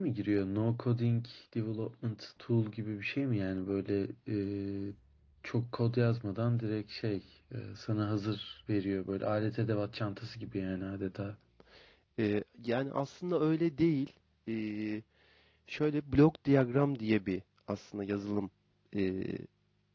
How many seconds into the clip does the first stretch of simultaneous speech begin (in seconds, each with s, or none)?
none